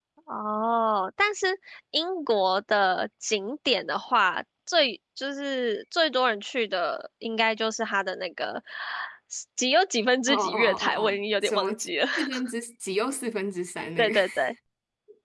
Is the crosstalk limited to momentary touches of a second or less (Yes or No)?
No